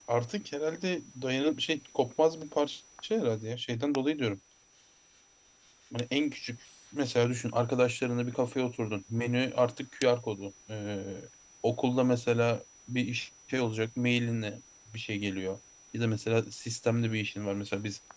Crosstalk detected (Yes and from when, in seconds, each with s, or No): No